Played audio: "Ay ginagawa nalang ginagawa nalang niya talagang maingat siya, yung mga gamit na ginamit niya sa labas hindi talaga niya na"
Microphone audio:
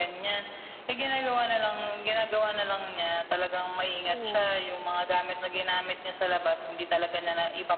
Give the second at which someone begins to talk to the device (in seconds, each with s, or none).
4.1 s